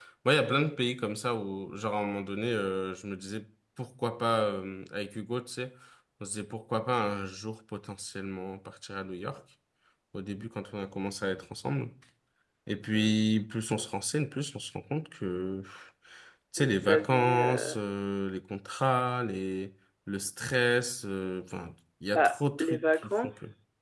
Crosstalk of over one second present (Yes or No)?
Yes